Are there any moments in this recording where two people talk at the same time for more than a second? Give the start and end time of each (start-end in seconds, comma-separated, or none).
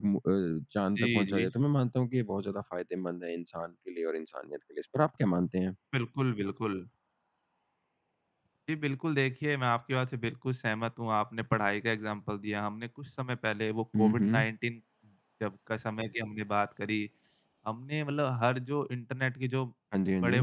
none